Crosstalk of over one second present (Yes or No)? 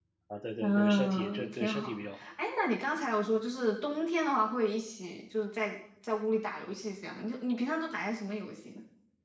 Yes